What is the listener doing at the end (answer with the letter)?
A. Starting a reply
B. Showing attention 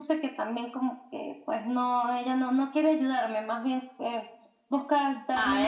A